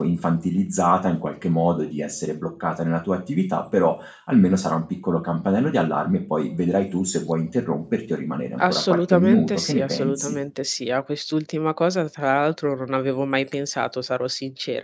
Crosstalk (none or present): present